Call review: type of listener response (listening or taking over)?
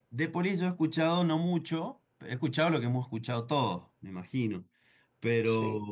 listening